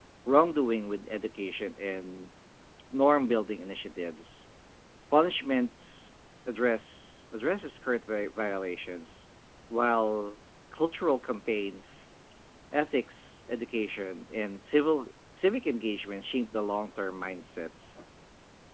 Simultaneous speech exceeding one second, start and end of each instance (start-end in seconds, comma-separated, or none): none